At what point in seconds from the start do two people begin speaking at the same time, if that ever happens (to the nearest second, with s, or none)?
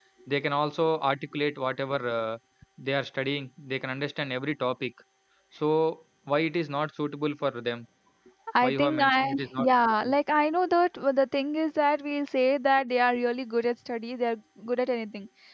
9 s